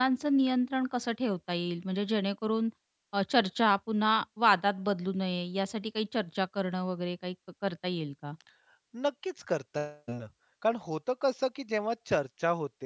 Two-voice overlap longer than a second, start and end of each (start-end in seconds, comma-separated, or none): none